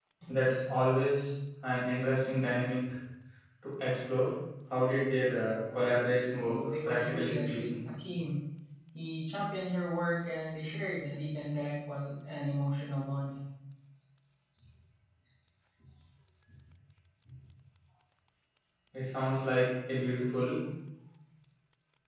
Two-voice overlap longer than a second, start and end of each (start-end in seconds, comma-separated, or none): 6.4-7.7